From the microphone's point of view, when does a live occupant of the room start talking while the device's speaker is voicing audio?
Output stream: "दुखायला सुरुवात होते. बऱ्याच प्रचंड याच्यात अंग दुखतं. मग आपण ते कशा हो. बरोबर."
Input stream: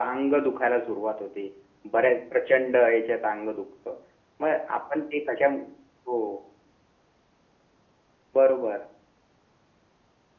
none

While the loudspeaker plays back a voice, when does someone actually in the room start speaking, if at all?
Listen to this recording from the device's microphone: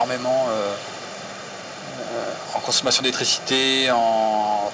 none

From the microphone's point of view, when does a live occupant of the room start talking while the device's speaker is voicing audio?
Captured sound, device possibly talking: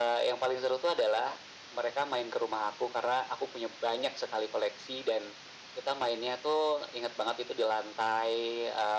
none

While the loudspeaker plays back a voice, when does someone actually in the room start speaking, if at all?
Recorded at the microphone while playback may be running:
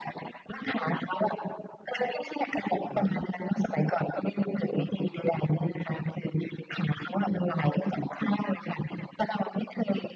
2.9 s

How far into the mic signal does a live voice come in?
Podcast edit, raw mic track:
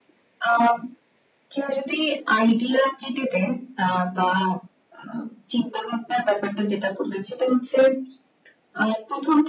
none

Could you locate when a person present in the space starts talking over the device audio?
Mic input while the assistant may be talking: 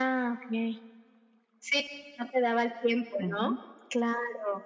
3.2 s

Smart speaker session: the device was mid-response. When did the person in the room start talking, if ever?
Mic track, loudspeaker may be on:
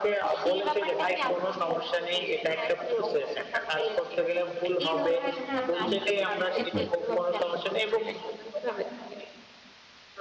5.5 s

